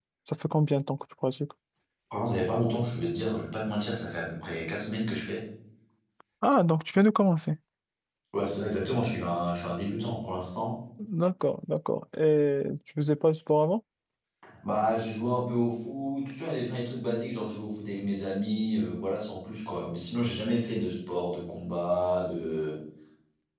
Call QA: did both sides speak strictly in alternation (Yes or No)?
Yes